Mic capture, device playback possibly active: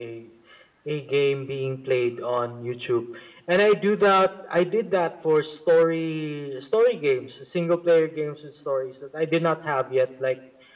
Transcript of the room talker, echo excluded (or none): none